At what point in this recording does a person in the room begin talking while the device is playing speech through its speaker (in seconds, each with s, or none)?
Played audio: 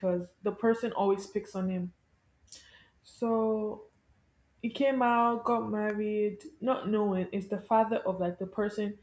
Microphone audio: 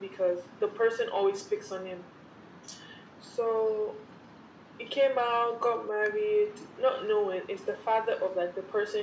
none